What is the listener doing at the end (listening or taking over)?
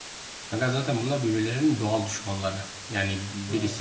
listening